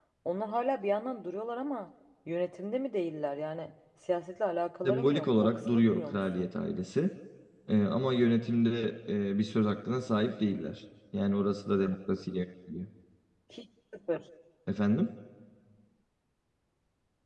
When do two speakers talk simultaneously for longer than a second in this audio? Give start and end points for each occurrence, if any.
4.8-6.5

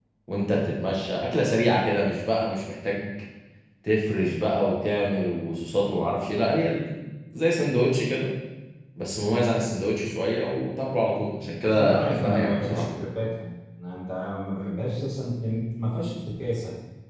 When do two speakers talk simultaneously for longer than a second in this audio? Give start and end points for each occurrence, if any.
11.4-12.8

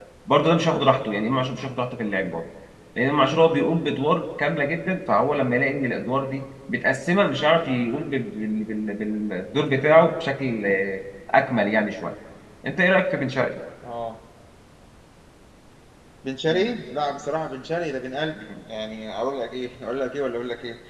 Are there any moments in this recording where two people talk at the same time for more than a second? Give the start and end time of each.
none

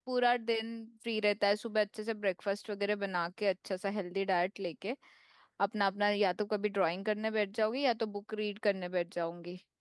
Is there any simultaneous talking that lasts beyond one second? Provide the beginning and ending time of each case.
none

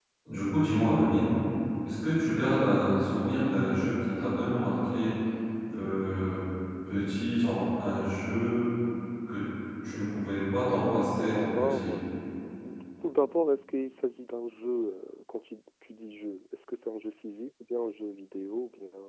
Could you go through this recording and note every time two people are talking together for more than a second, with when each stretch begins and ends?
10.6-11.9

